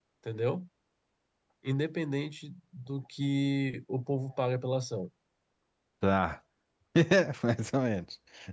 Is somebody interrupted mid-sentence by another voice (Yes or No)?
No